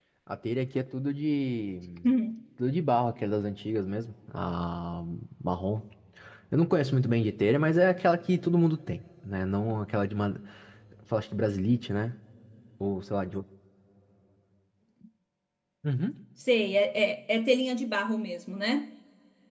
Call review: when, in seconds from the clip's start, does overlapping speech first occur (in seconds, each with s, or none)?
none